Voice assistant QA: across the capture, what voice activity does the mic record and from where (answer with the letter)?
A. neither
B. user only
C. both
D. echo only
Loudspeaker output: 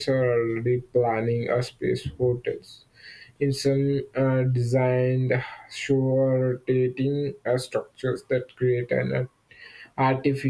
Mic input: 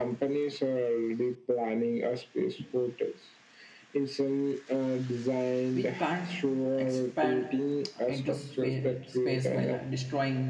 C